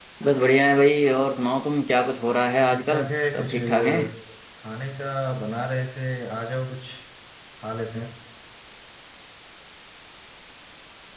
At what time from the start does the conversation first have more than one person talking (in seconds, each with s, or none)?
2.6 s